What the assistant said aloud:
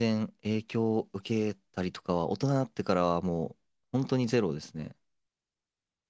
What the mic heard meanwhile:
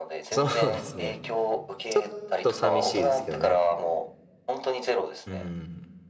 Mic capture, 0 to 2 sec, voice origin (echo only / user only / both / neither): both